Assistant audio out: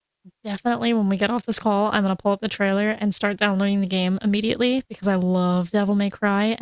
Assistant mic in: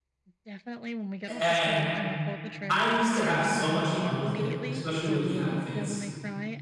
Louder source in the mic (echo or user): user